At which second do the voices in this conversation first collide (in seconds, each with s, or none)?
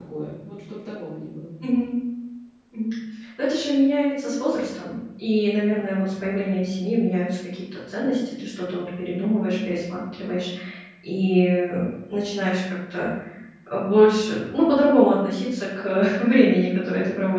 none